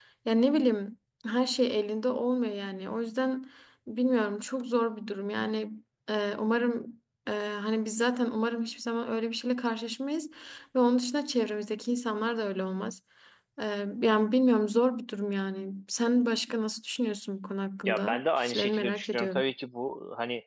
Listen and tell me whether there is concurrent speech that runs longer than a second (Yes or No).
Yes